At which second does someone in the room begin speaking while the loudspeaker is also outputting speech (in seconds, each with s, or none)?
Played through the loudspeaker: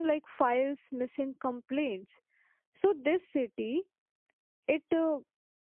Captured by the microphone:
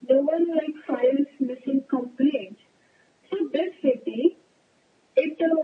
none